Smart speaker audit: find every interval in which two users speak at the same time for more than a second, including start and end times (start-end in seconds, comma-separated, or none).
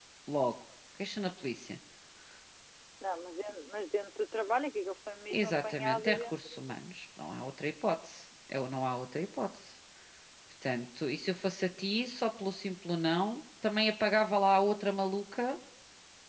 5.3-6.7